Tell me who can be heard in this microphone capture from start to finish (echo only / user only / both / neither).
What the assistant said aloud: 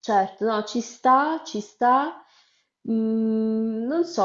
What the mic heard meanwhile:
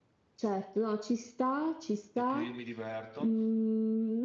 both